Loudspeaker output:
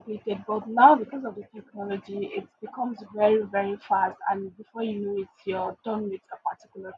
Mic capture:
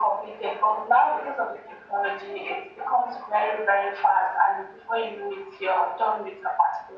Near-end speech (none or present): none